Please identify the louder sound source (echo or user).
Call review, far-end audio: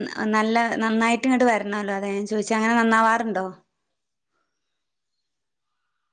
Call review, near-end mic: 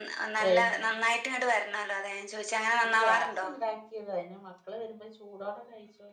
echo